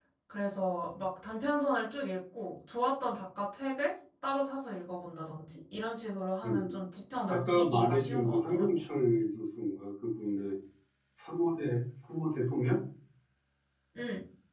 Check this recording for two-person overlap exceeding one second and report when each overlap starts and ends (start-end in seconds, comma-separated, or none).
7.3-8.8